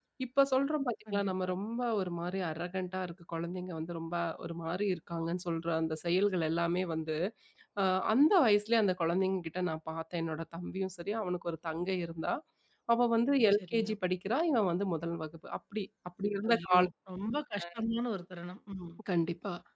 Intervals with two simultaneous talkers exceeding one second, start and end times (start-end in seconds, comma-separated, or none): none